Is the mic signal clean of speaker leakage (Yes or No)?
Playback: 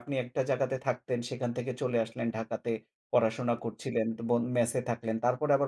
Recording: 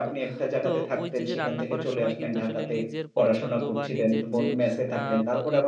No